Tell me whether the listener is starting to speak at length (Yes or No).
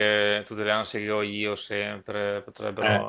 Yes